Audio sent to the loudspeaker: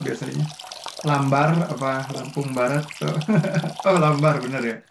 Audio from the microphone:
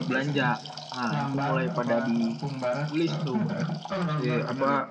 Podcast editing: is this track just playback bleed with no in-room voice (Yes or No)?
No